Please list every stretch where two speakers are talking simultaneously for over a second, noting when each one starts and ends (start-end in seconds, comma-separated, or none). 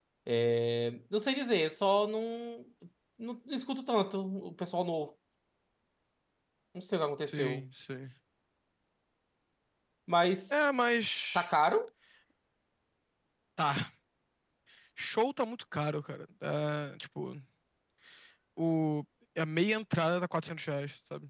none